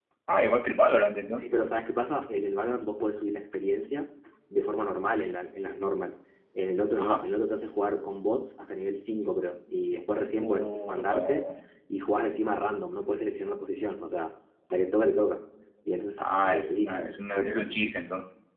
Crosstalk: present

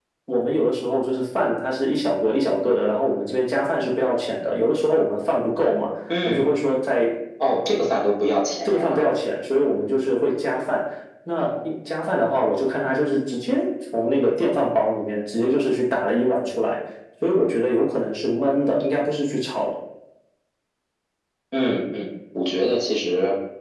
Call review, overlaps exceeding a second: none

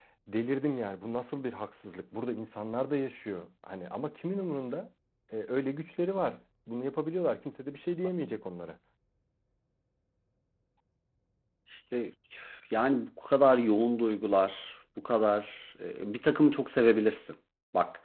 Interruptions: none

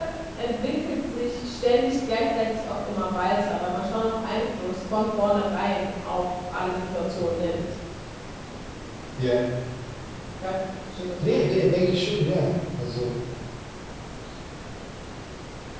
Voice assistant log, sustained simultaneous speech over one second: none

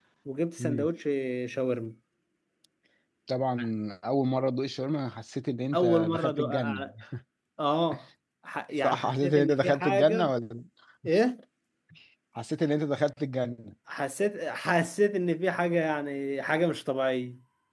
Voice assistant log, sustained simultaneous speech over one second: present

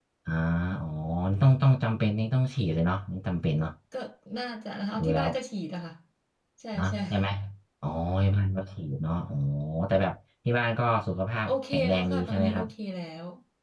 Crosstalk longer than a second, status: present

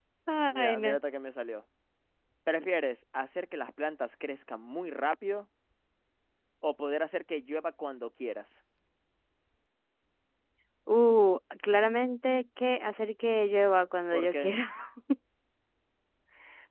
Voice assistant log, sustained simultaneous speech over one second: none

